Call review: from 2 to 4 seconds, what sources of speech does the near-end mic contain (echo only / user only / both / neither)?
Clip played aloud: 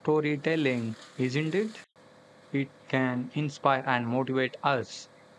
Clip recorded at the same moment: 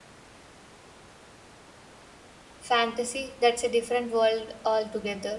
user only